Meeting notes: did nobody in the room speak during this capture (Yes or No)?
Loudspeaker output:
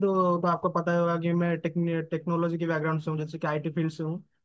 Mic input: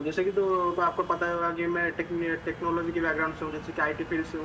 Yes